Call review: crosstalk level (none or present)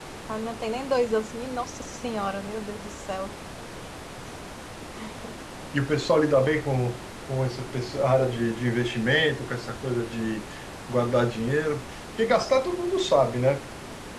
none